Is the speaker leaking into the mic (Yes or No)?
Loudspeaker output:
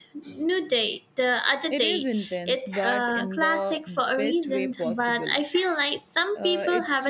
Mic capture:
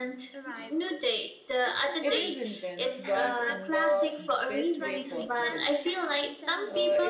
Yes